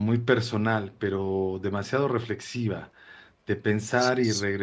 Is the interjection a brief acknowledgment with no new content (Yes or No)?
Yes